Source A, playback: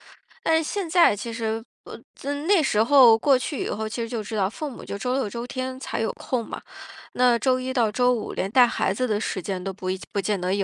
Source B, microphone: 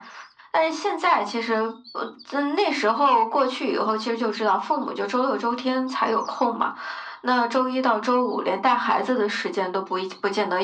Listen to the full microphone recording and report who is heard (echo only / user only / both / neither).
echo only